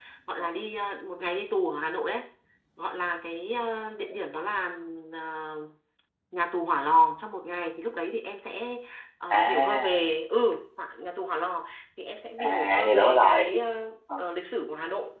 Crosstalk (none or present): present